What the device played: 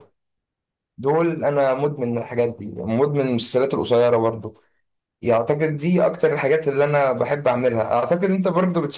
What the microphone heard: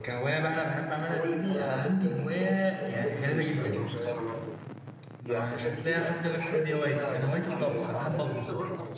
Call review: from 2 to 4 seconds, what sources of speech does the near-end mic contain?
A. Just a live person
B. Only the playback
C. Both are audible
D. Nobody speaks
C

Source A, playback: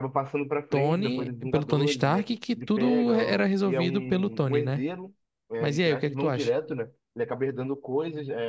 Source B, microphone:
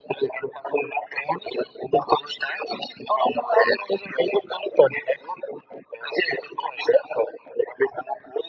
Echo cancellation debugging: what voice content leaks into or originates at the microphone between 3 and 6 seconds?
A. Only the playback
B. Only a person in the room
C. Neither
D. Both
A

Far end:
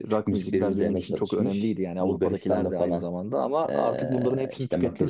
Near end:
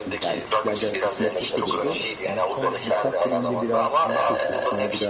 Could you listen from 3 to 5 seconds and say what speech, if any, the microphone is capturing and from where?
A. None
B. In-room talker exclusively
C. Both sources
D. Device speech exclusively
C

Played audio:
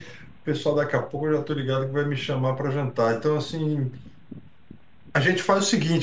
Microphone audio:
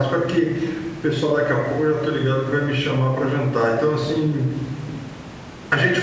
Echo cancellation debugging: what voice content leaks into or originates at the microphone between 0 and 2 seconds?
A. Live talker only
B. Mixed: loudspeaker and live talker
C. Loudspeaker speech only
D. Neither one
C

